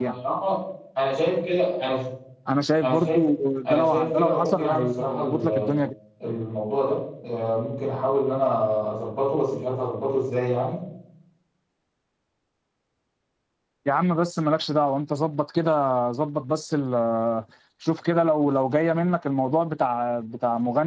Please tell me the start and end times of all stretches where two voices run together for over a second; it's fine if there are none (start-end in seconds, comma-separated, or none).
3.7-5.7